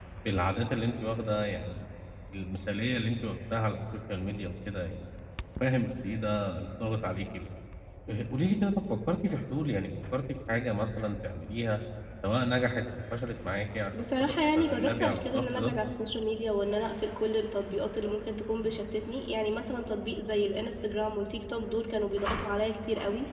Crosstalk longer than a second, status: present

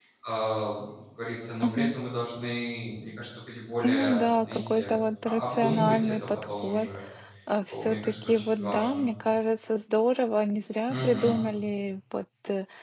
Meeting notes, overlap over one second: present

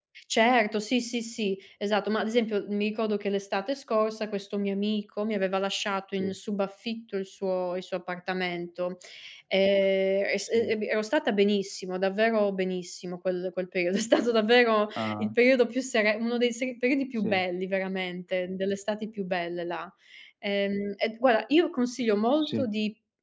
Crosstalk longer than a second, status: none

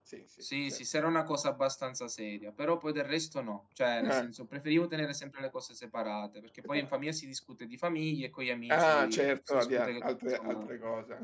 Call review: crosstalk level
present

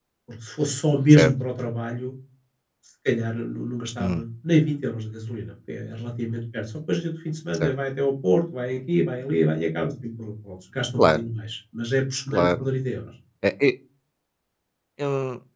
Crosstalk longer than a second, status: none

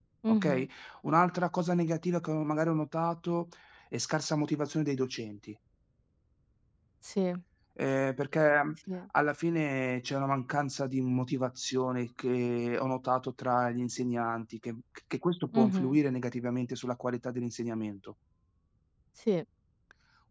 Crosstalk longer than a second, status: none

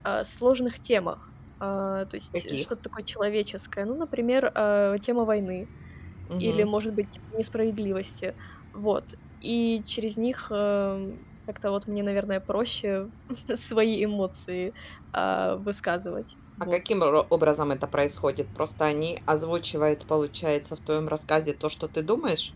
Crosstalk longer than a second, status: none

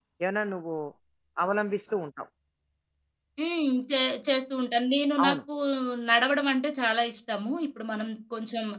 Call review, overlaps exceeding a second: none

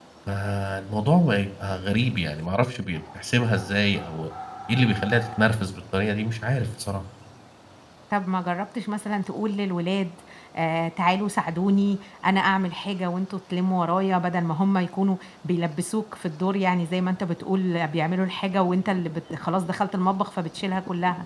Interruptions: none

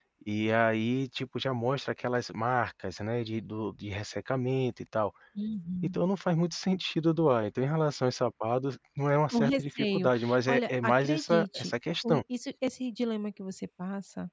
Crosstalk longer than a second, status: present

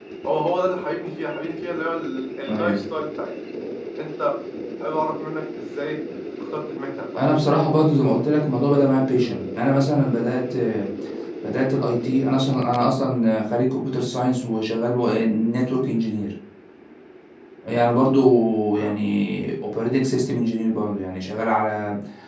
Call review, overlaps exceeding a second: none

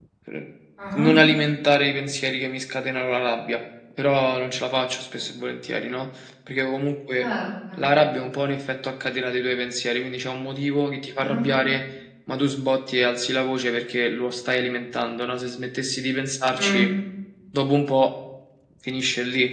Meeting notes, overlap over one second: none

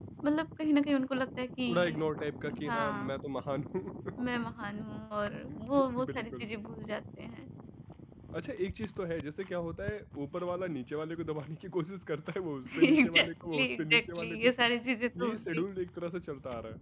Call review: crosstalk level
present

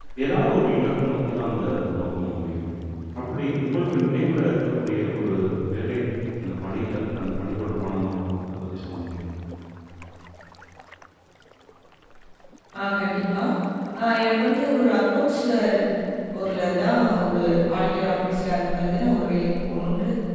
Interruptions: none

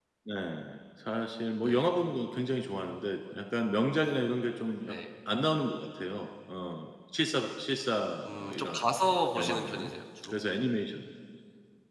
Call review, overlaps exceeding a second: none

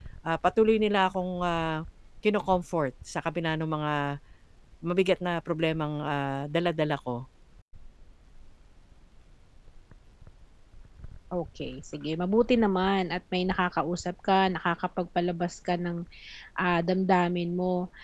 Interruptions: none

